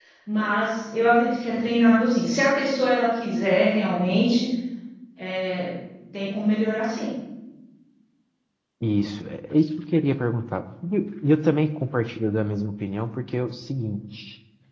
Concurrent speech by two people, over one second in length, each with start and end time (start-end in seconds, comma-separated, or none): none